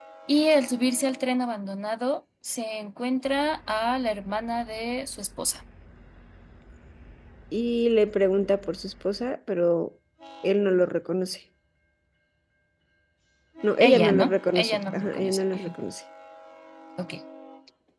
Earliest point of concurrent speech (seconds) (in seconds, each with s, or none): 13.8 s